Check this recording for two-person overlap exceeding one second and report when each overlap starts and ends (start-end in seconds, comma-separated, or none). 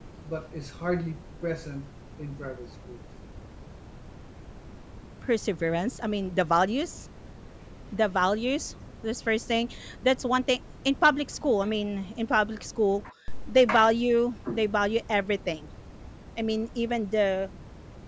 none